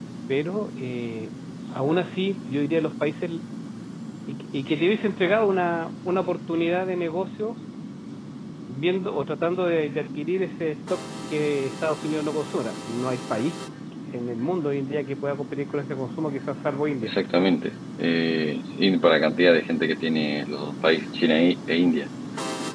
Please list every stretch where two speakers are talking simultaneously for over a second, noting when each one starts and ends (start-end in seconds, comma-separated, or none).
none